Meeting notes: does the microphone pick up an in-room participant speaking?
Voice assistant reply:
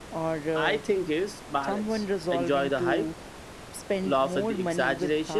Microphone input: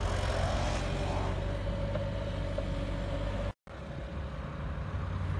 No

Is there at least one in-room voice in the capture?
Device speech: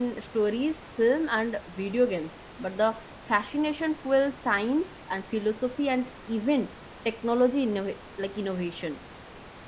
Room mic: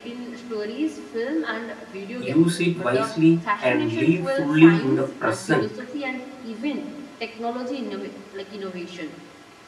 Yes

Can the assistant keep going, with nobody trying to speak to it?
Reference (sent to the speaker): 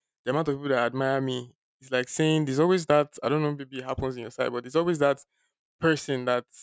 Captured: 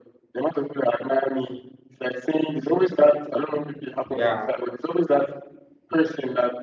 No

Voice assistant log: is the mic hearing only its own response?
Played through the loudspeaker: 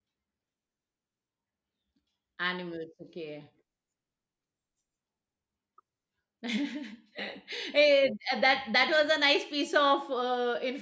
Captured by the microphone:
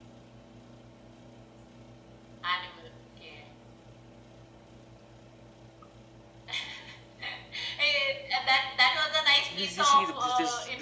No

